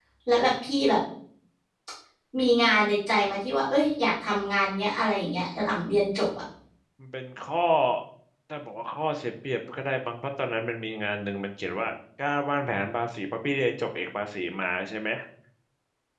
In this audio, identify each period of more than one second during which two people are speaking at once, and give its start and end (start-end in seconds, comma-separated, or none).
none